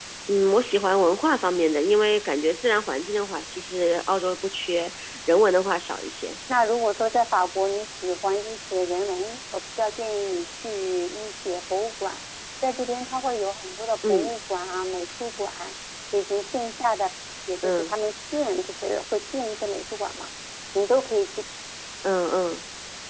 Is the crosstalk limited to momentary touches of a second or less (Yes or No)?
Yes